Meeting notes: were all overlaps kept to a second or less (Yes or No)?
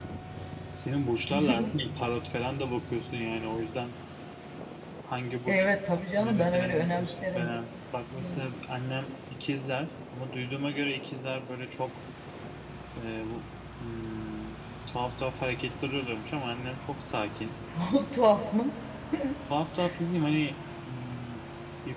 No